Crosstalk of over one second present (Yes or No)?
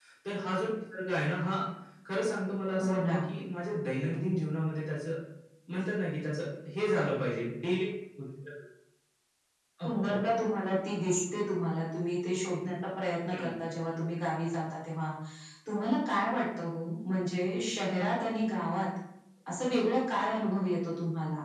No